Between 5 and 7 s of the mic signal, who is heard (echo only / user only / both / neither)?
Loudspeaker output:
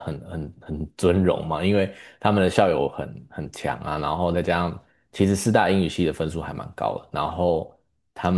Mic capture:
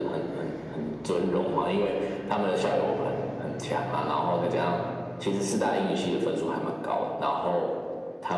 echo only